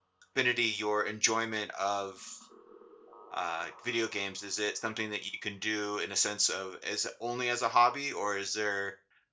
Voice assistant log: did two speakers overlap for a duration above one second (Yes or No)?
No